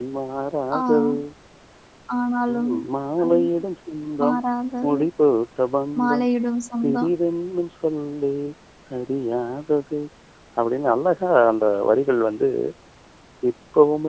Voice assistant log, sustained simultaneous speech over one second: none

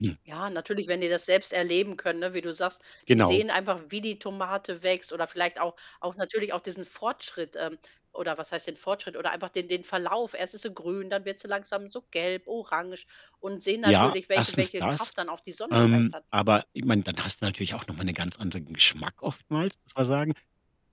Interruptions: present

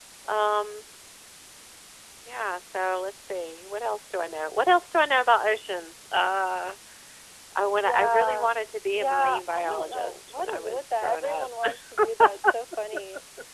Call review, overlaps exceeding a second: present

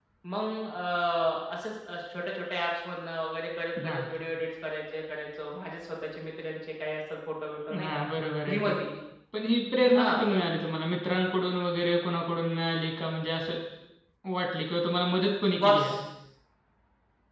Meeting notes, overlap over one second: none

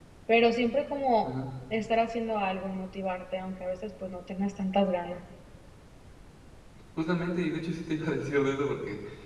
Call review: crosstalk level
none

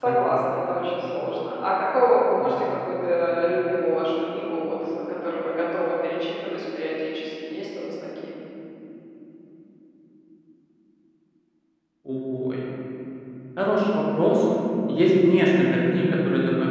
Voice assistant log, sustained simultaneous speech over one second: none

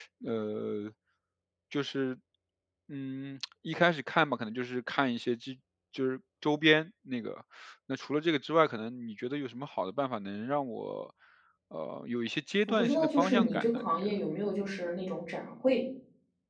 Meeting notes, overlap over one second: present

